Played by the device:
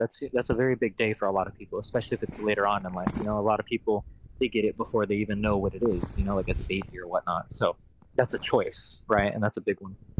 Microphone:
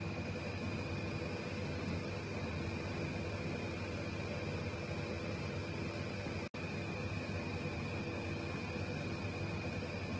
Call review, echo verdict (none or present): none